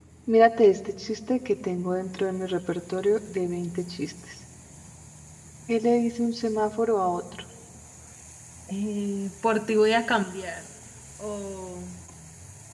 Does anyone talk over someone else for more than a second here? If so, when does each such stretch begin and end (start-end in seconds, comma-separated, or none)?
none